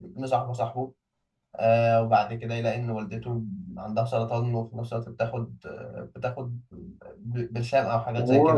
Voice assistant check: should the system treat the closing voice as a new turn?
Yes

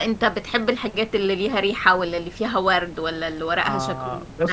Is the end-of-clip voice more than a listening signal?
Yes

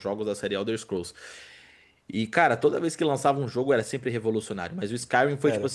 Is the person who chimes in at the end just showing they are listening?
Yes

